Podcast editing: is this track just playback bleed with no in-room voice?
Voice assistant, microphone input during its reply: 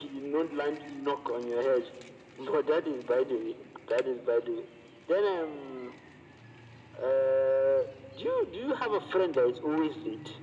Yes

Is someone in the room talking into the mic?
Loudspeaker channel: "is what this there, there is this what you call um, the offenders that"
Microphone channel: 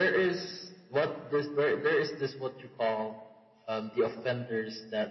No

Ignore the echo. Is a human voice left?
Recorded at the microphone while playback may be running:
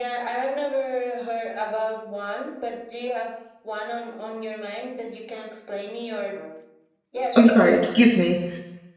Yes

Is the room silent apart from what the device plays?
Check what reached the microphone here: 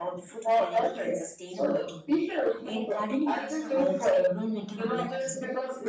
Yes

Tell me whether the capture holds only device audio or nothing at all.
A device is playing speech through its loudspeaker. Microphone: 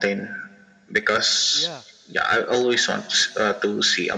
No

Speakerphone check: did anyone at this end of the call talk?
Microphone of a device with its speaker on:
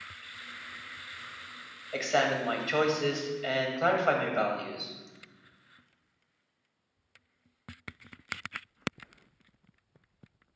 Yes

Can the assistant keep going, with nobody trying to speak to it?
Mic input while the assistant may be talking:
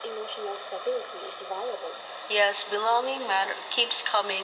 Yes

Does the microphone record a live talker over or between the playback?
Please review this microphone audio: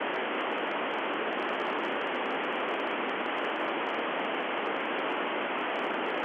No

